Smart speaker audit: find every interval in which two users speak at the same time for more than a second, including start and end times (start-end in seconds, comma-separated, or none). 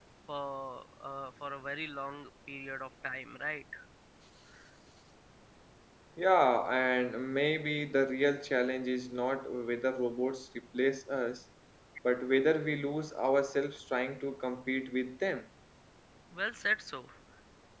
none